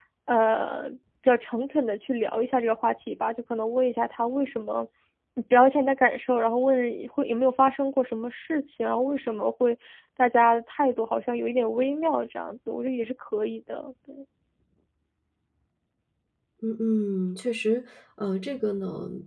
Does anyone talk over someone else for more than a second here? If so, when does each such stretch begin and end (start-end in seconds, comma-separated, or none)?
none